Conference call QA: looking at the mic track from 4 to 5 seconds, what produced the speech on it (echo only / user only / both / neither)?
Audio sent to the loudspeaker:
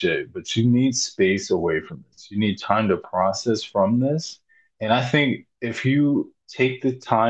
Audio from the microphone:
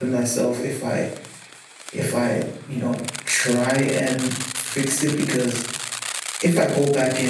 user only